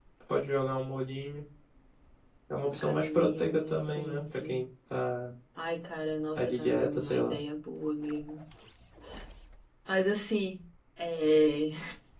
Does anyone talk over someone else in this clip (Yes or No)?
Yes